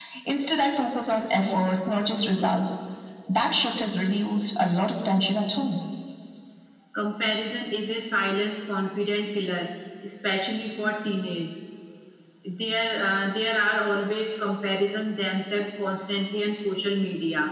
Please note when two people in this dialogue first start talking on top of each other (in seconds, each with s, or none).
none